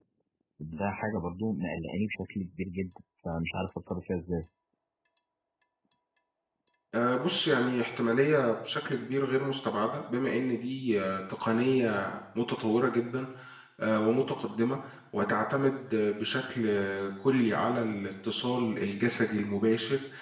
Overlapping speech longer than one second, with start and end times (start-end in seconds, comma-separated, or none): none